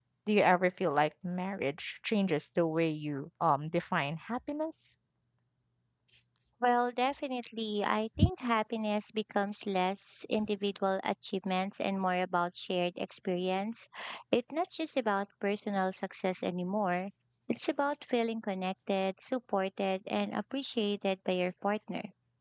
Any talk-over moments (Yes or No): No